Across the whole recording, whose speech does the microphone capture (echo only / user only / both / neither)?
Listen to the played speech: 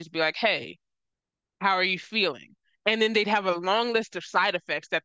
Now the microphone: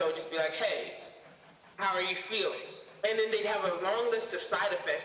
echo only